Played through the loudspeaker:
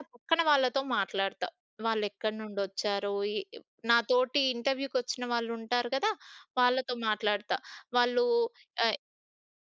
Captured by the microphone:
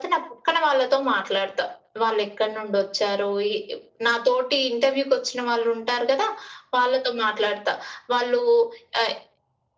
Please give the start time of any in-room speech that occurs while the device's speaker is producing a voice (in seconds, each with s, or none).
none